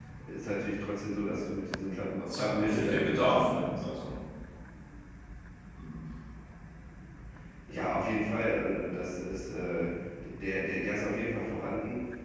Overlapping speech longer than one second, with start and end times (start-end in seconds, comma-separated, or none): 2.2-3.8